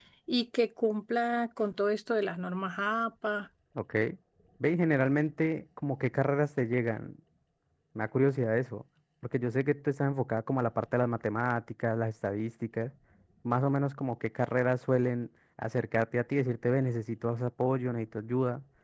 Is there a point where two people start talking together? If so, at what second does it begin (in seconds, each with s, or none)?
none